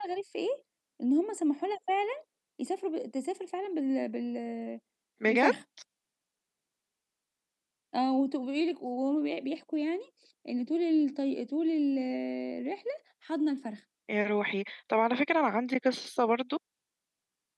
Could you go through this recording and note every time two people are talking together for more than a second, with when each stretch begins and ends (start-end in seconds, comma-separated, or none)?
none